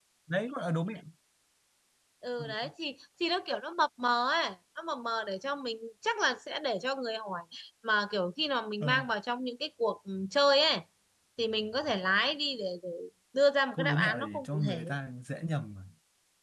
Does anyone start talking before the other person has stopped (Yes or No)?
Yes